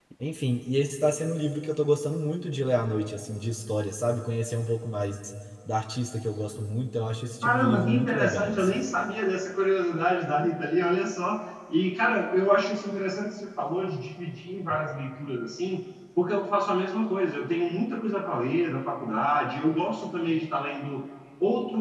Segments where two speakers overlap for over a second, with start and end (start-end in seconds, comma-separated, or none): 7.4-8.8